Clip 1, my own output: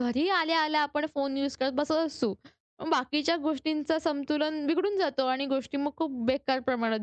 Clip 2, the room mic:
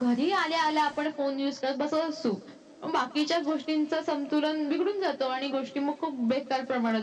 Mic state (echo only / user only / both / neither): echo only